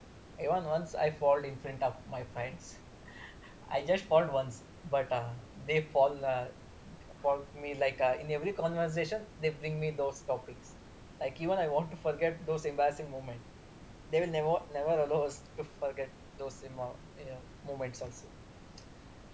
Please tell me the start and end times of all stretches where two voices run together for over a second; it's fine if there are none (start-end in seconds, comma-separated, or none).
none